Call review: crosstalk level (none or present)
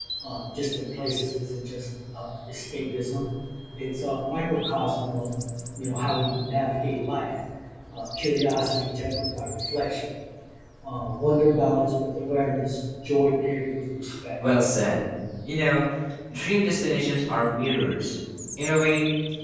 none